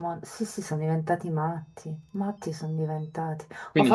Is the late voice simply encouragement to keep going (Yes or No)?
Yes